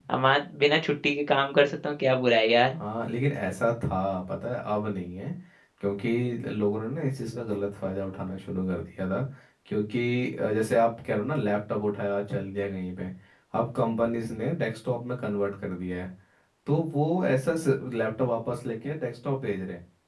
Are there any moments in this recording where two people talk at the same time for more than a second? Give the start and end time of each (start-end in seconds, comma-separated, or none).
none